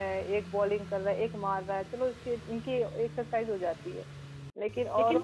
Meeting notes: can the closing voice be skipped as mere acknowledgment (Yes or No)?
No